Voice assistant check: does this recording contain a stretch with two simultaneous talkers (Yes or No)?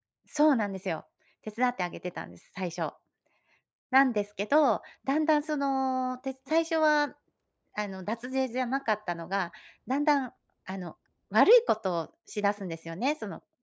No